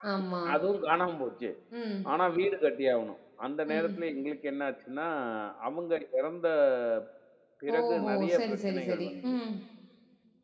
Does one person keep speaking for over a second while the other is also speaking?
Yes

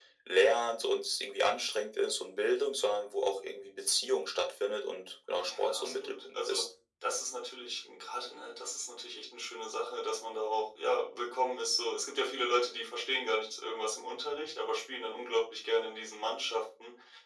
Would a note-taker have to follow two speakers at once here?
Yes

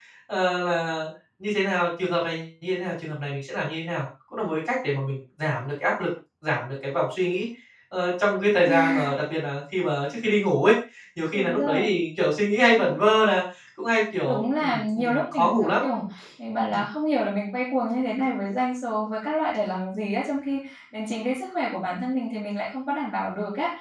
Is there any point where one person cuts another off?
Yes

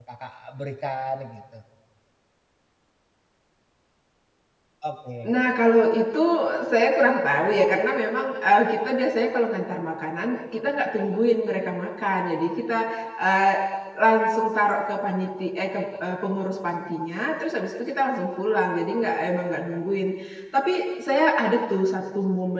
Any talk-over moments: No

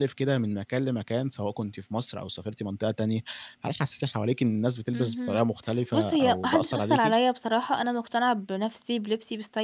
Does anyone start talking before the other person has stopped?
Yes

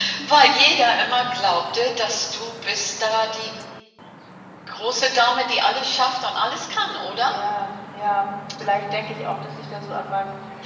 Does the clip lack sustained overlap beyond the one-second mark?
Yes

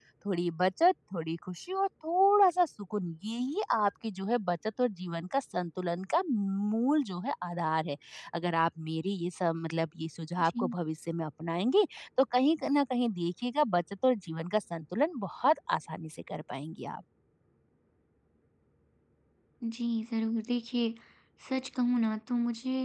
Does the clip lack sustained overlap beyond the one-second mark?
Yes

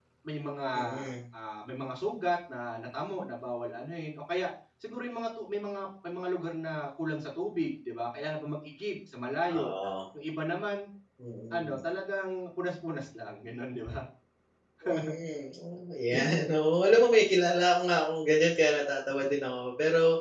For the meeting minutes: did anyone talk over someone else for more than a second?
No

